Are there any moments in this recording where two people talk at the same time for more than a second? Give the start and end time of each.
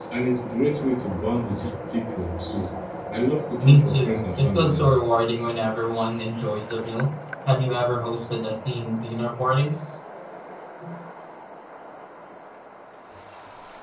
3.6-4.9

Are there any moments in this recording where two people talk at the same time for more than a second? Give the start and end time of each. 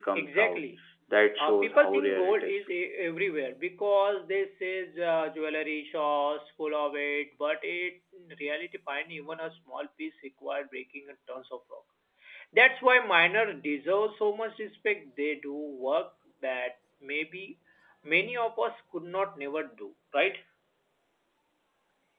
1.4-2.6

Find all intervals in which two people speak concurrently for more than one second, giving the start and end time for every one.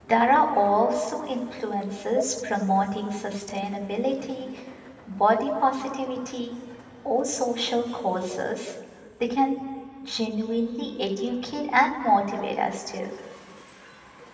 none

